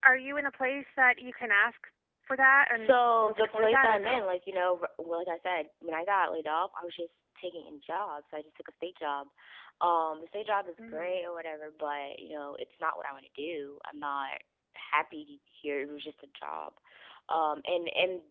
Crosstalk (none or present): present